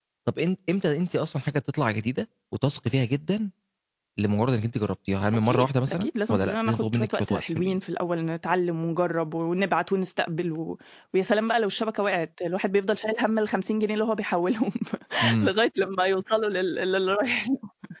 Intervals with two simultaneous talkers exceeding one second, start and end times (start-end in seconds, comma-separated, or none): 5.5-7.8